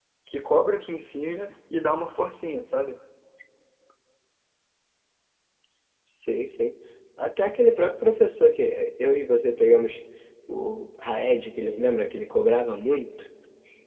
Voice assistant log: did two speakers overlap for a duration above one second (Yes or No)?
No